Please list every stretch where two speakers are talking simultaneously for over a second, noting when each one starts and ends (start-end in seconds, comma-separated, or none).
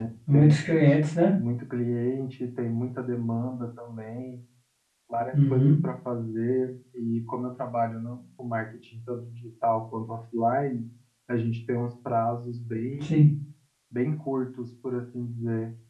none